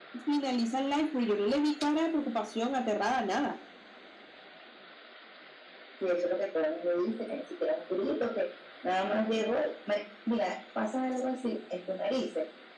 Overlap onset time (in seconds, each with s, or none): none